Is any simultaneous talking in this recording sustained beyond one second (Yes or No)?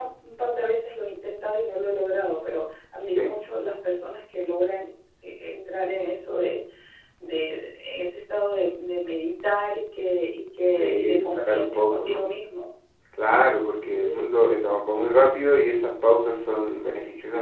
Yes